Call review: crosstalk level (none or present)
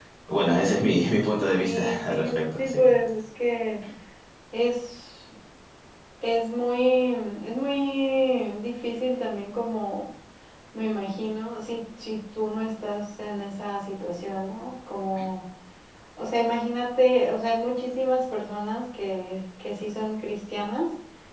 present